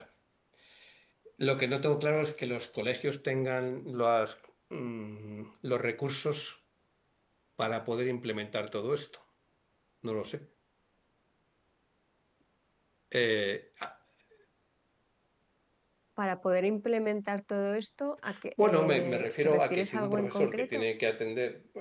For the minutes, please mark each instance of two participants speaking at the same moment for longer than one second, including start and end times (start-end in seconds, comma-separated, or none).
18.6-20.9